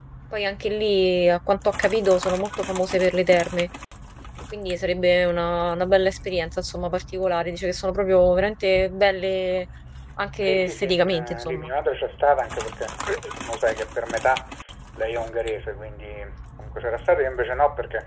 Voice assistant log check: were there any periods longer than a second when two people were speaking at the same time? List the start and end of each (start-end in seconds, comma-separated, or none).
10.4-11.7